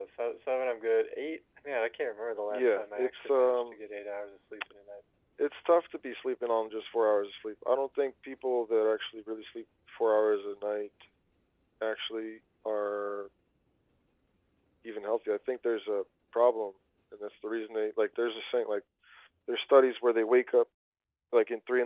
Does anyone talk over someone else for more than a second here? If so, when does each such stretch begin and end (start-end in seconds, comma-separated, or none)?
2.5-3.8